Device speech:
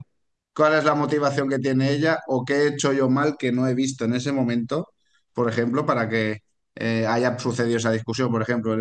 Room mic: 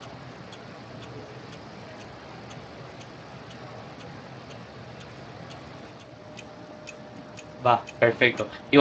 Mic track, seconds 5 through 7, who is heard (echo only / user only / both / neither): neither